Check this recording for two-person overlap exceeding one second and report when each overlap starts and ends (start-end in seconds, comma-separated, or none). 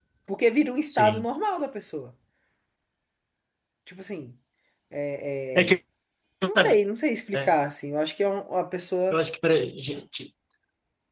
none